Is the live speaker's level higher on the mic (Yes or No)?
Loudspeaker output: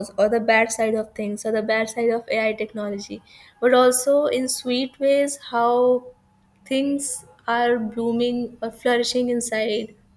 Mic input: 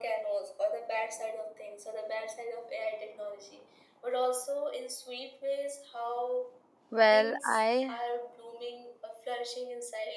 Yes